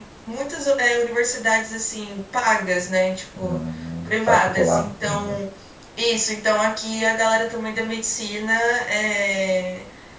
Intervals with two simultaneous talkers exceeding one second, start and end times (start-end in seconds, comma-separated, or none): 4.0-5.4